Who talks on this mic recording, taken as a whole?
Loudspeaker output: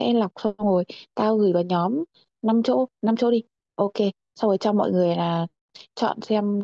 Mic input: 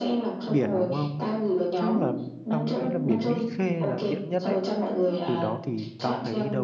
both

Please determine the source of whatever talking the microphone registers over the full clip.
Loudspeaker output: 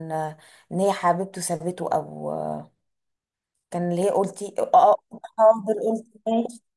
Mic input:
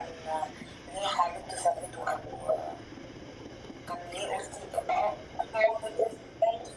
echo only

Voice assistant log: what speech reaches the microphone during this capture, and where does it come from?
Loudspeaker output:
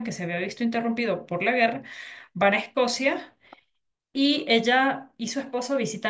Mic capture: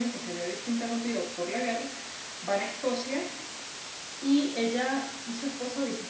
echo only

